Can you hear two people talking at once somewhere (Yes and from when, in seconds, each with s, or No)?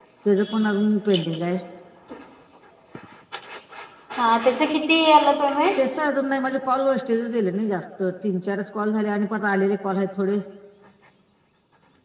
No